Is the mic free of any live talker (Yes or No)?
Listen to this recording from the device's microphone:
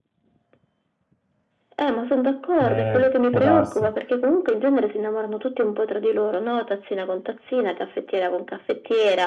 No